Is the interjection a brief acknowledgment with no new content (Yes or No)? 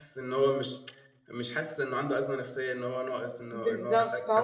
No